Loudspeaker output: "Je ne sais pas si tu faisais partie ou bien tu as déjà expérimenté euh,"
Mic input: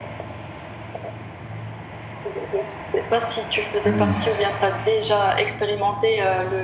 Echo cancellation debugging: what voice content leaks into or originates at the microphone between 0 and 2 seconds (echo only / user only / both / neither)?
neither